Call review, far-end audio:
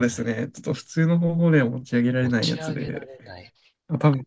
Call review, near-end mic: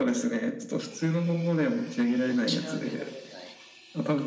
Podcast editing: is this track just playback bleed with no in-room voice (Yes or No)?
Yes